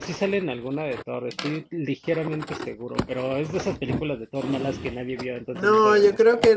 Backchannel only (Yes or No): No